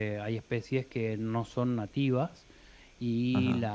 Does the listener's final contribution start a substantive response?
No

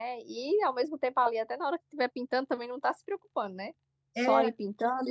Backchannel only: Yes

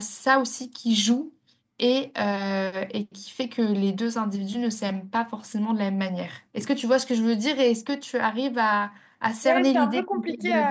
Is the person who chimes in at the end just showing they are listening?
No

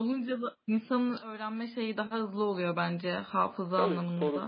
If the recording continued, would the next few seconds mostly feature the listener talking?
Yes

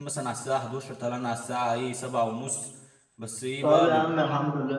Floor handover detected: Yes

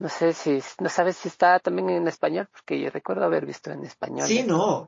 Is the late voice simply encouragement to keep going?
No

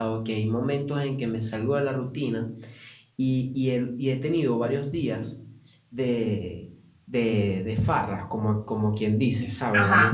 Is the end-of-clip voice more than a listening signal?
No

